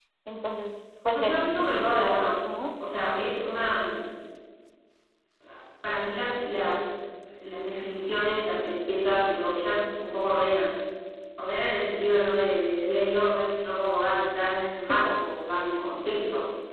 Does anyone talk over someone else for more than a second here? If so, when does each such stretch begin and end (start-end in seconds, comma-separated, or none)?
1.1-2.3